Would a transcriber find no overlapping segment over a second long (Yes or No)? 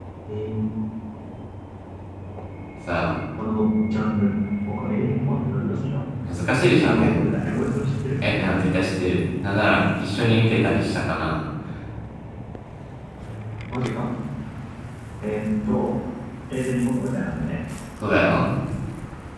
Yes